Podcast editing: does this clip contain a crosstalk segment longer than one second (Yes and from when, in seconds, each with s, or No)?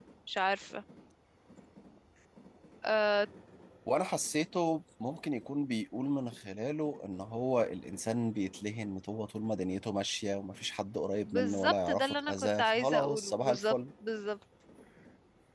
Yes, from 11.2 s